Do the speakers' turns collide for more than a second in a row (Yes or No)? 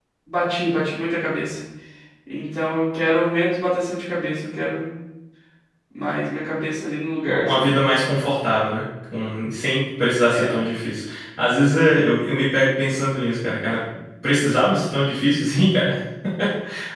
No